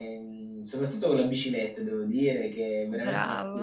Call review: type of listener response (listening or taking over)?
listening